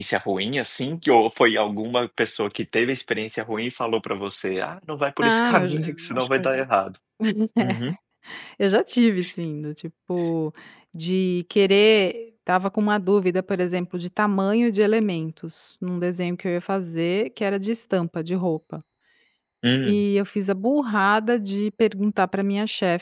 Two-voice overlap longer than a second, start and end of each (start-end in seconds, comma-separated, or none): 5.2-6.5